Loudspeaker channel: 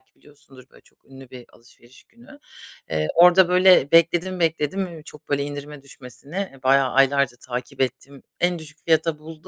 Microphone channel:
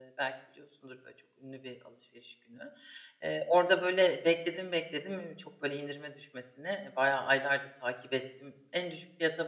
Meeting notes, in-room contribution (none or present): none